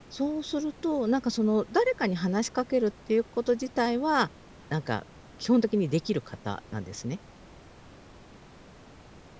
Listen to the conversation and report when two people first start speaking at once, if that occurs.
none

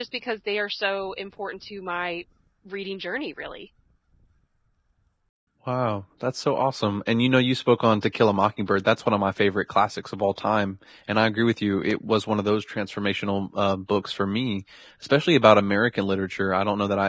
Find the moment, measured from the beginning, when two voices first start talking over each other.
none

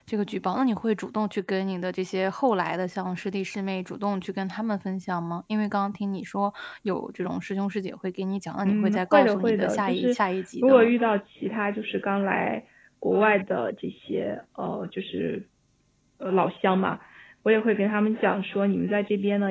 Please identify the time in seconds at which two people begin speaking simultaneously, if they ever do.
8.6 s

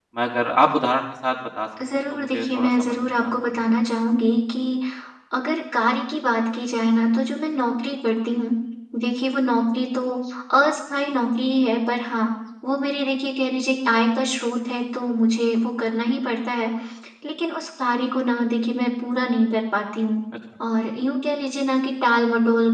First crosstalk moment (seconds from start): 1.8 s

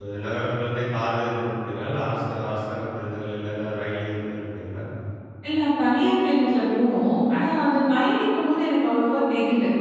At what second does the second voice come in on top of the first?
none

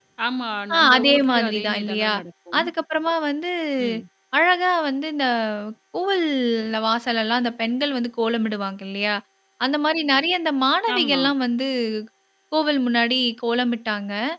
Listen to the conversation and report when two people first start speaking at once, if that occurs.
0.7 s

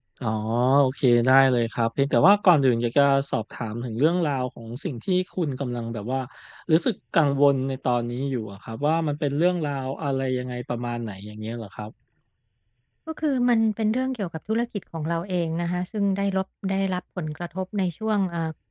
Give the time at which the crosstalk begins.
none

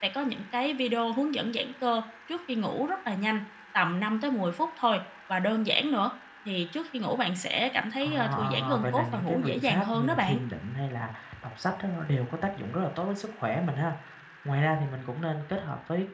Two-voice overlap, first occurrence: 8.0 s

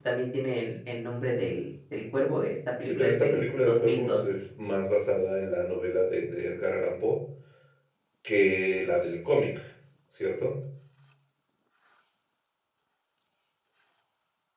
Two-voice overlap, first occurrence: 2.8 s

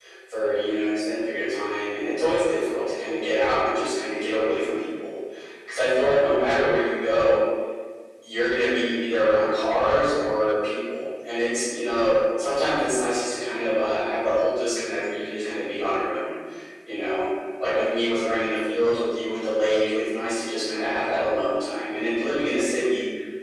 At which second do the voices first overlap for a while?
none

